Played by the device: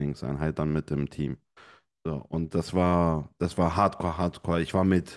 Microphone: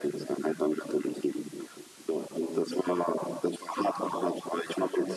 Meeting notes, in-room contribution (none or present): none